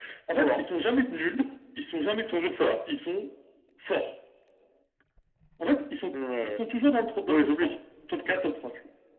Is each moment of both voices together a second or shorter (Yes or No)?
Yes